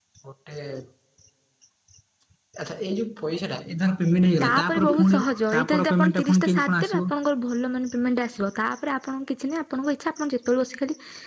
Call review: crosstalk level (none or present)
present